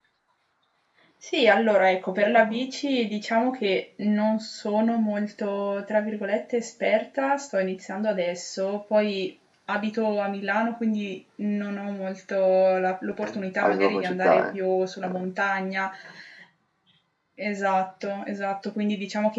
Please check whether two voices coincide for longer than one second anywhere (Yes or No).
Yes